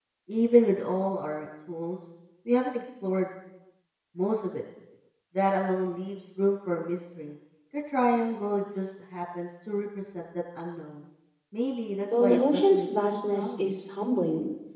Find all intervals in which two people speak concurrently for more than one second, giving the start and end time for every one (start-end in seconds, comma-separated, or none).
12.2-13.7